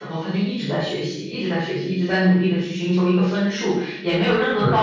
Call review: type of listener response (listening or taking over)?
listening